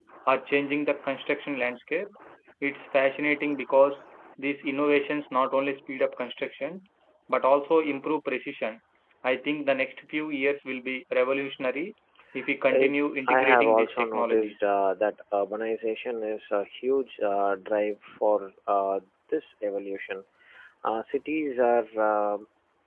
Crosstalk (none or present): present